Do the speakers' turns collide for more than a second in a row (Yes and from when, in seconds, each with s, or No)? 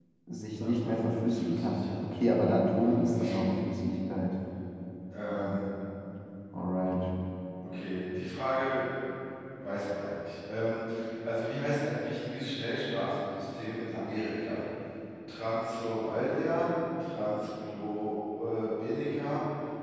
Yes, from 0.6 s